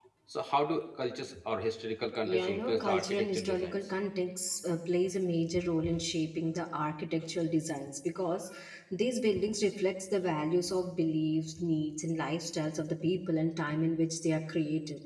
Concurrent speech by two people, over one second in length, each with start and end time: 2.2-3.8

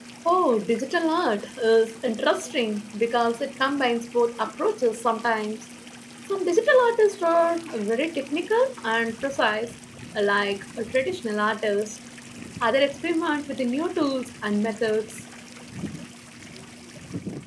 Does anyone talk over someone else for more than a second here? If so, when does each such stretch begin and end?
none

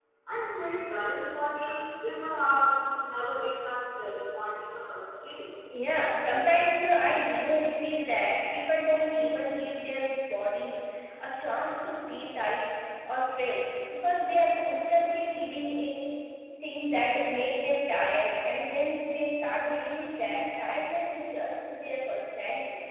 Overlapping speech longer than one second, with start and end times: none

